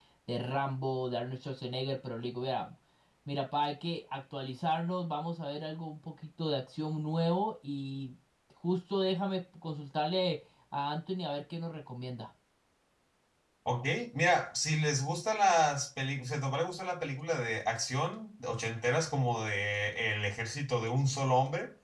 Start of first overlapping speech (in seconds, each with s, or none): none